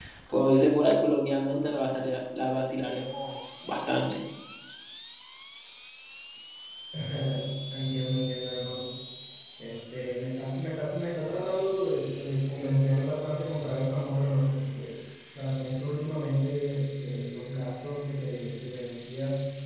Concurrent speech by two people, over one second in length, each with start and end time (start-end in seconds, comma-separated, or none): none